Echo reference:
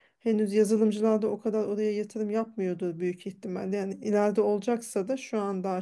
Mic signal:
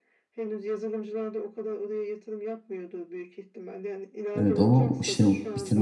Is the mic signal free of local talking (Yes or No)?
No